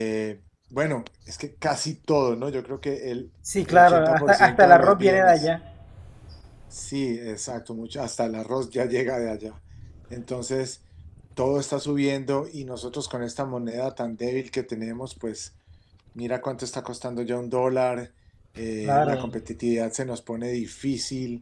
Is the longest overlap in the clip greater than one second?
Yes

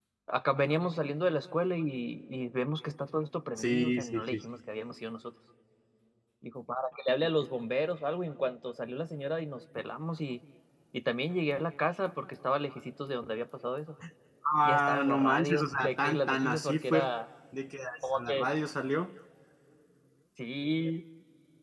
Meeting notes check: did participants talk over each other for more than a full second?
Yes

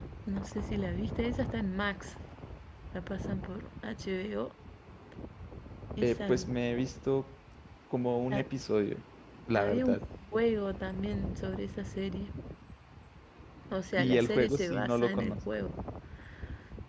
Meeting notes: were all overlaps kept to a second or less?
No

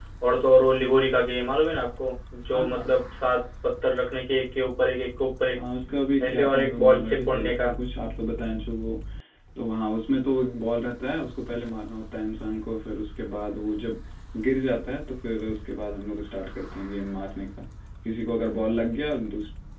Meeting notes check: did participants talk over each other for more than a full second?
Yes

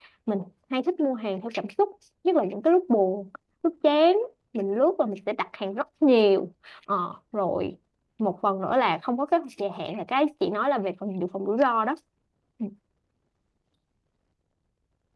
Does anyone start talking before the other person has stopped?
No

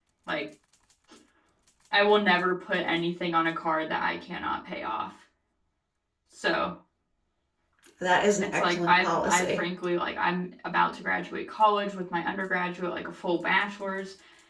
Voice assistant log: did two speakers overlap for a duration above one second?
Yes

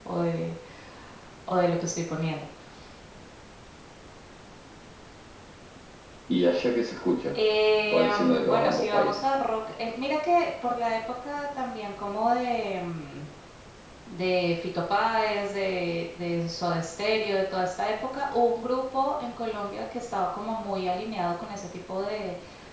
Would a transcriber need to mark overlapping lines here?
Yes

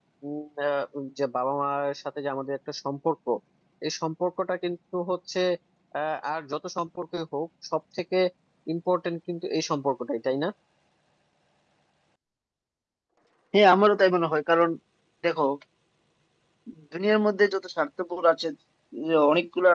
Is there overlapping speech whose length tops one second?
No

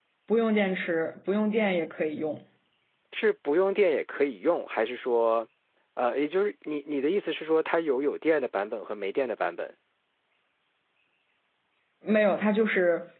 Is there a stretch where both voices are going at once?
No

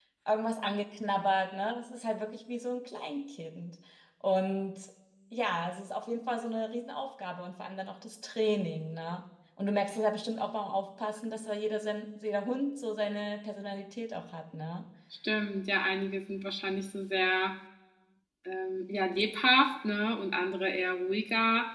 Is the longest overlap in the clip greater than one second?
No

